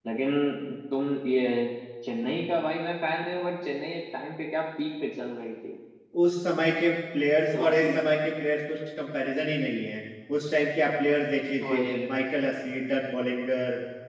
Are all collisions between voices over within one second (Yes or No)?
Yes